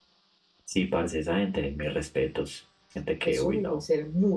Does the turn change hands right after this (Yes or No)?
Yes